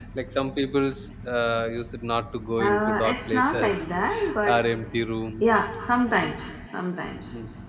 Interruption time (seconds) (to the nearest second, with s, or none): 3 s